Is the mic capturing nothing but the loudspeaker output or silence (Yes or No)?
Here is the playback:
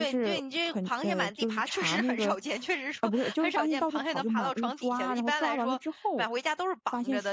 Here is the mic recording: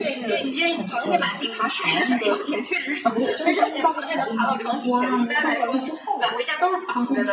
Yes